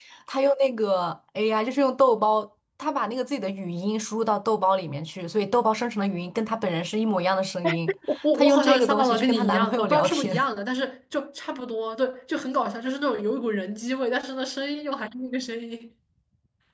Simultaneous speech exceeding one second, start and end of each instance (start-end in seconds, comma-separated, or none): 8.3-10.4